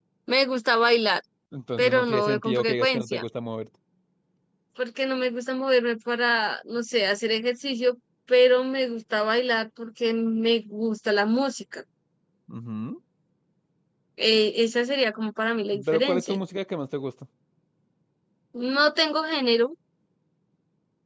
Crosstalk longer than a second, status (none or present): present